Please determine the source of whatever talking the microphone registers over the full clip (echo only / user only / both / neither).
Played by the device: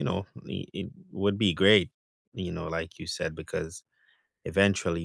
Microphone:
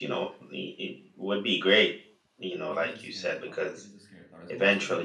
both